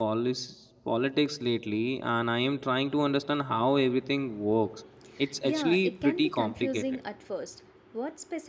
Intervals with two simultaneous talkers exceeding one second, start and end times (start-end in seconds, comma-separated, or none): 5.4-7.0